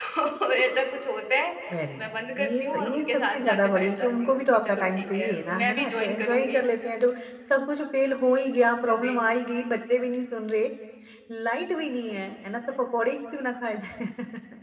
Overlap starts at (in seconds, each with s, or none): 2.0 s